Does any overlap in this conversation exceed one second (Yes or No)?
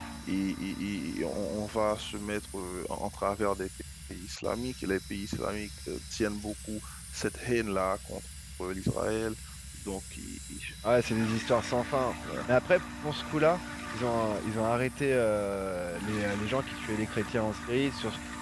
No